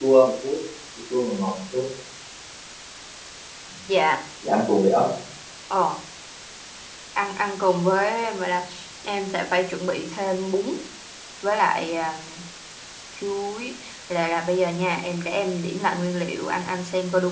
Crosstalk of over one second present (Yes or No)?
No